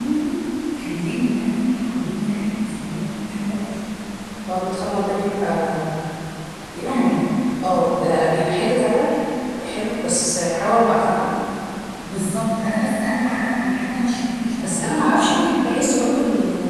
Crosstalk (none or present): present